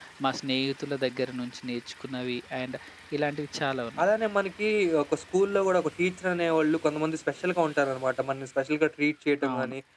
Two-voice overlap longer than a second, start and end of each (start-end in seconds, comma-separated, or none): none